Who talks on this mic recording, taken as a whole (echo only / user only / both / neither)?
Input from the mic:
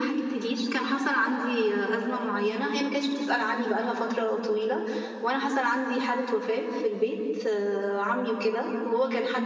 echo only